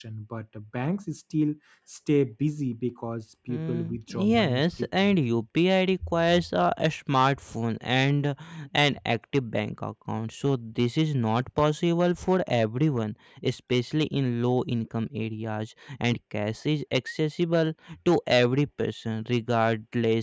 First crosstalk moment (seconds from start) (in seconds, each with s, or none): 3.5 s